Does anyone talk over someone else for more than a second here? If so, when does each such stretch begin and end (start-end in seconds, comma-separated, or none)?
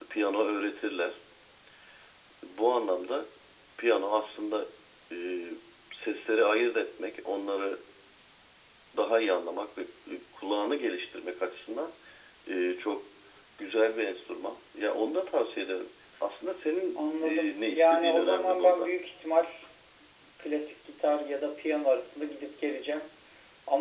17.0-18.9